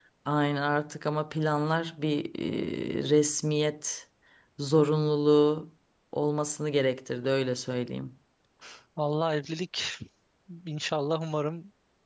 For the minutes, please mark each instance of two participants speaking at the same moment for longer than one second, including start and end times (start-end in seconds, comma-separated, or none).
none